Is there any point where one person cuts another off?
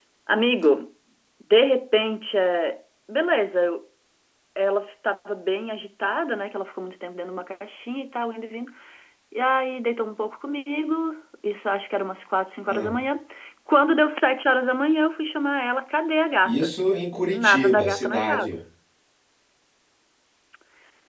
Yes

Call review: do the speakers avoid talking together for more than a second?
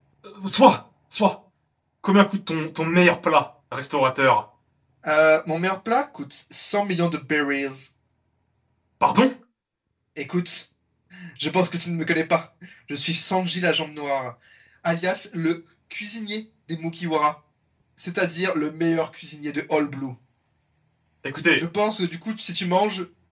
Yes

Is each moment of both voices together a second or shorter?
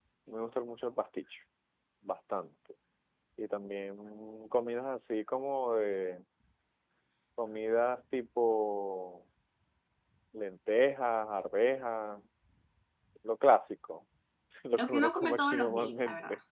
No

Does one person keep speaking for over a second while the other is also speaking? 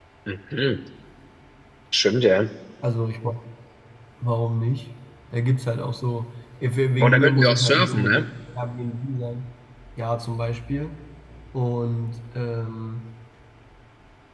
Yes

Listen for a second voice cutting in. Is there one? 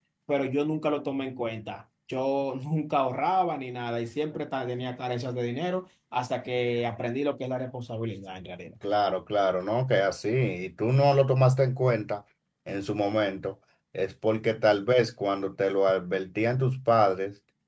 No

